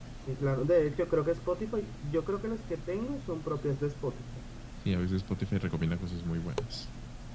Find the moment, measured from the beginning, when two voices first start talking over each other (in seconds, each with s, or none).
none